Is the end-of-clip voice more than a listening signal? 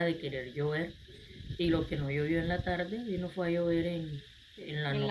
Yes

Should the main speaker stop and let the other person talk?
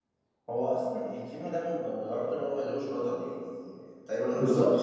Yes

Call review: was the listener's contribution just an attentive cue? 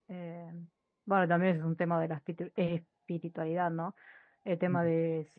Yes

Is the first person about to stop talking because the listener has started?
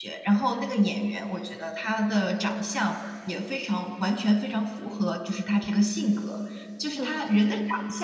No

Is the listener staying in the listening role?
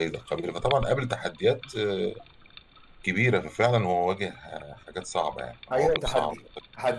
No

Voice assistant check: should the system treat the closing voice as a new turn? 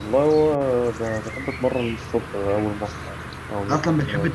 Yes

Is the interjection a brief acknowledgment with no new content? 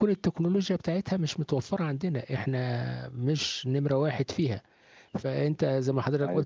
Yes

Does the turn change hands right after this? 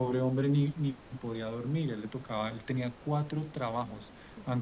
No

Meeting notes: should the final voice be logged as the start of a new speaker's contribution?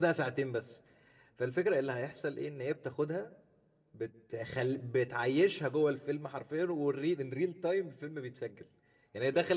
No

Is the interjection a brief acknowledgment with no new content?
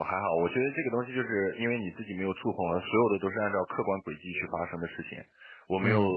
Yes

